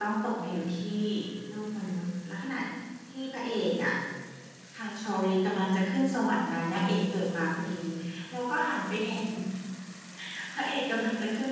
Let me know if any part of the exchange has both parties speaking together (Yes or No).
No